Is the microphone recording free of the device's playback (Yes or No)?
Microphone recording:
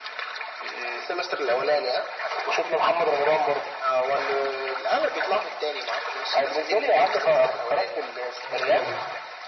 No